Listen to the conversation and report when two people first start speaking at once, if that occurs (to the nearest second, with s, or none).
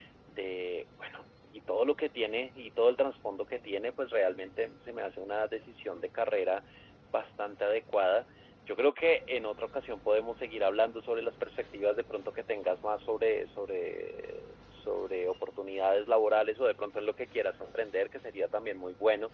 none